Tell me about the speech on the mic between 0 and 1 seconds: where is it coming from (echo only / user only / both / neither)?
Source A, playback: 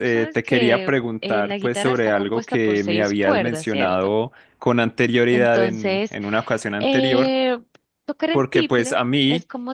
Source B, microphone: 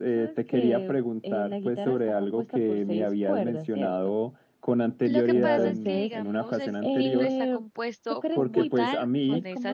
echo only